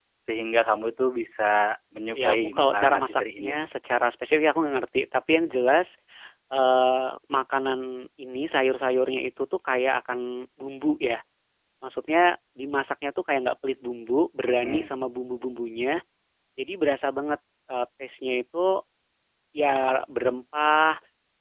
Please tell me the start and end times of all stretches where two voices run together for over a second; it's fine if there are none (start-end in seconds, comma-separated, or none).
2.2-3.5